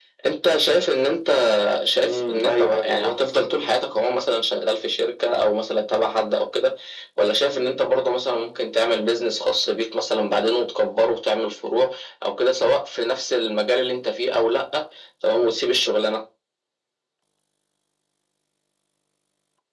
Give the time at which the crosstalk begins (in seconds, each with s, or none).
2.0 s